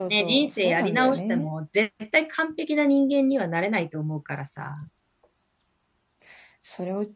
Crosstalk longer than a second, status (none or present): present